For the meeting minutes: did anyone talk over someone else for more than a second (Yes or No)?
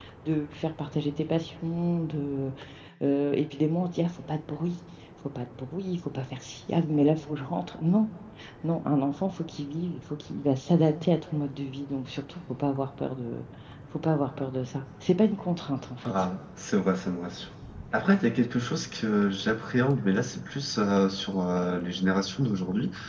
No